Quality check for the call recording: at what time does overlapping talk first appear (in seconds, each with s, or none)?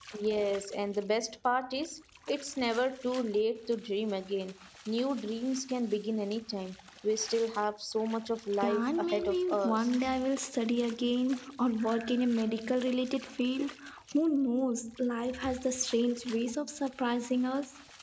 8.6 s